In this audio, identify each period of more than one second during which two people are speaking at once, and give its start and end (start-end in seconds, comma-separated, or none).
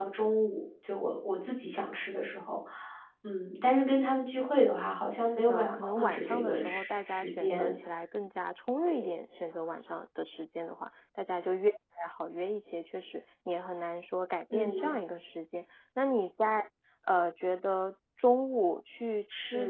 5.3-7.7